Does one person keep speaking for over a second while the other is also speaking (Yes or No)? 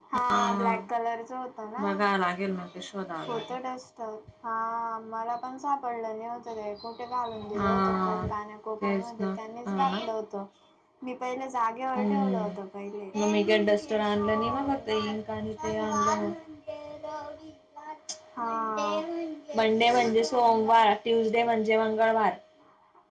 Yes